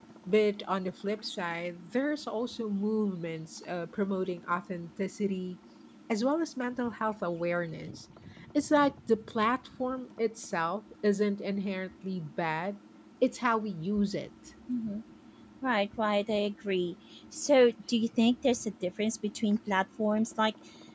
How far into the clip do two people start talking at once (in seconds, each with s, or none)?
none